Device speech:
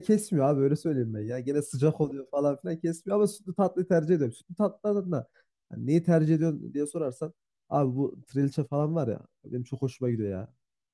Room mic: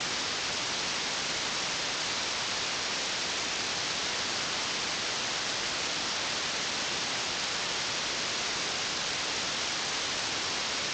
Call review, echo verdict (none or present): none